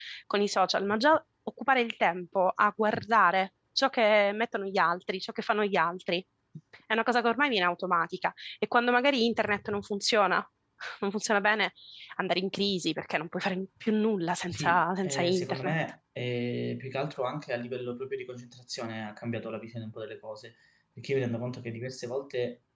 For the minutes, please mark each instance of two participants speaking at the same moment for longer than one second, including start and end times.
14.5-15.7

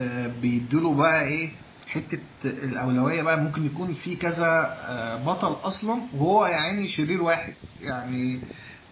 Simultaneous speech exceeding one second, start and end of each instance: none

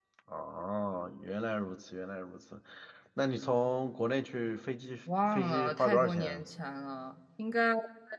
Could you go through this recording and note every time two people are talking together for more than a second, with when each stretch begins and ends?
5.2-6.4

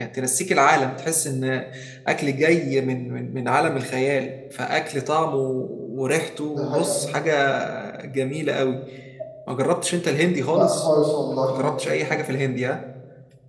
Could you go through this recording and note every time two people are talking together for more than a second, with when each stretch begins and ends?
none

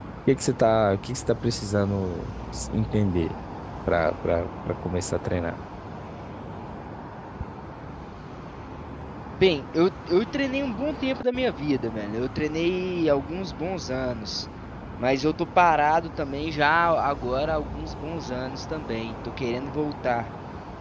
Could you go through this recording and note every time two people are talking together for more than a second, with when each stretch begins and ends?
none

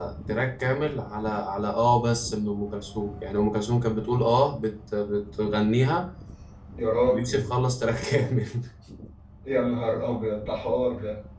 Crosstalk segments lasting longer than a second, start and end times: none

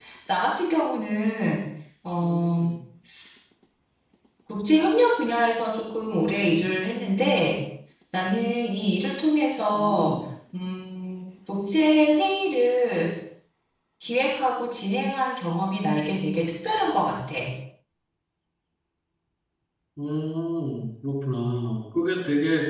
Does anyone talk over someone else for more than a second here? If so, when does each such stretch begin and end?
none

